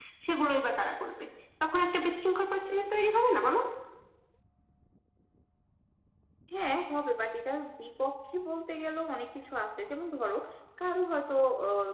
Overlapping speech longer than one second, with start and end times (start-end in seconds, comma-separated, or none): none